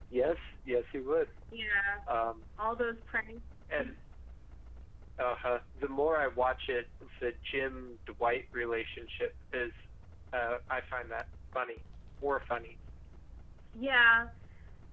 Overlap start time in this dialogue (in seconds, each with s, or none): none